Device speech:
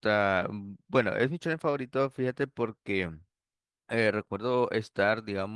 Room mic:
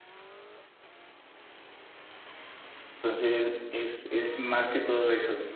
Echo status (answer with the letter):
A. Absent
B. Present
A